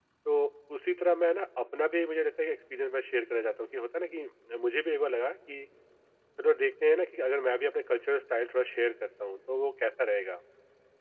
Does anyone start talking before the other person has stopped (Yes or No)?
No